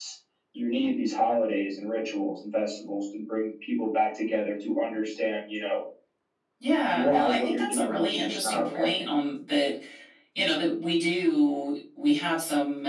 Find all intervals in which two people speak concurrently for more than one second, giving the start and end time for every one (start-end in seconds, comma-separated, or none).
6.9-8.9